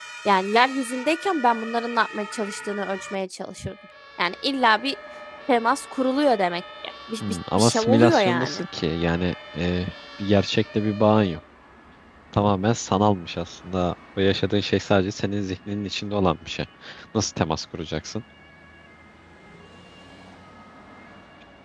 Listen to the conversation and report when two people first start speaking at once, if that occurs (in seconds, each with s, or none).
7.2 s